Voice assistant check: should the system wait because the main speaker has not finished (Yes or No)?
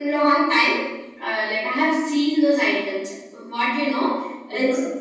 Yes